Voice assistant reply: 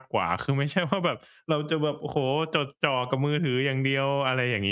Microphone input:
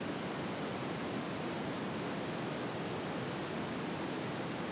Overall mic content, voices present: neither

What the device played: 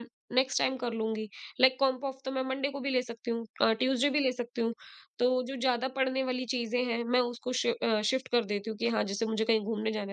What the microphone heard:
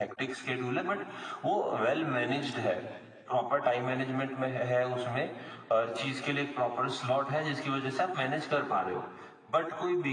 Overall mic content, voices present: user only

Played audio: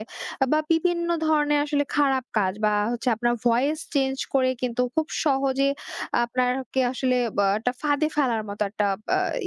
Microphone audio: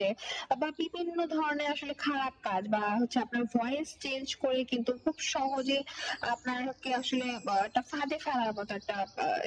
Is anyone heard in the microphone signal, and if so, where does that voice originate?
echo only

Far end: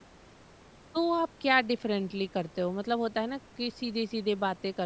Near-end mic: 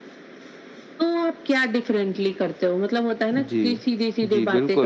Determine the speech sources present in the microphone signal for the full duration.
both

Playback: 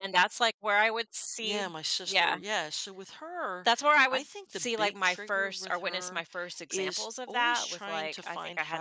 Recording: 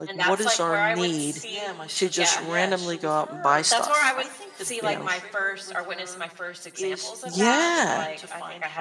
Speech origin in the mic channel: both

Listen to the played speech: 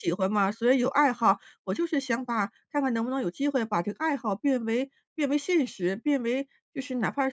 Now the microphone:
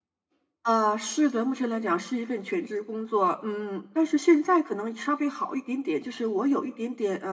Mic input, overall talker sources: user only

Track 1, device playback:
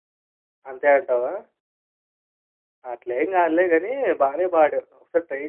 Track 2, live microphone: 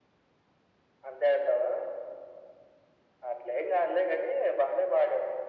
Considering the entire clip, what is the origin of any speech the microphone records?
echo only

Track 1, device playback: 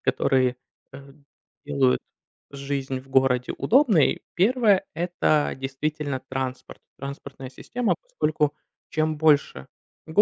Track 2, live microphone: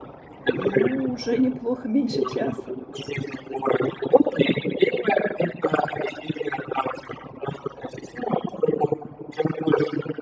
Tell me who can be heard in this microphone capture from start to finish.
both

